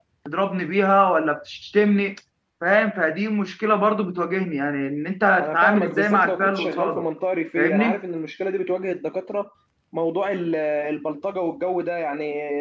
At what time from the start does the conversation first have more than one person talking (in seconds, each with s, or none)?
5.4 s